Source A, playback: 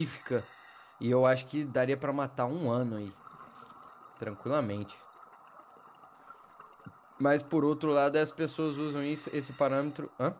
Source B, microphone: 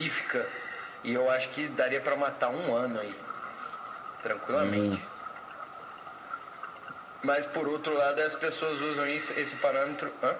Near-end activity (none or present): present